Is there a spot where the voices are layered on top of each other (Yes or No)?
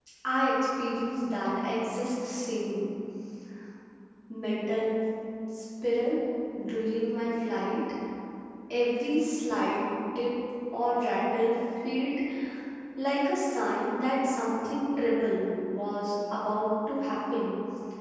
No